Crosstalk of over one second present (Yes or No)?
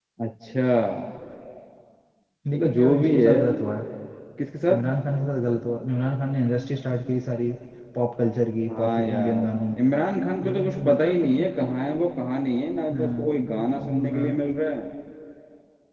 Yes